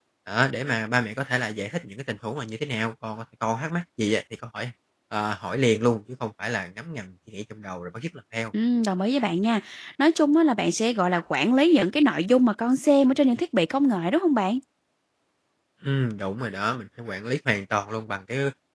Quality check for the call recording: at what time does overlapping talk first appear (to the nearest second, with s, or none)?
none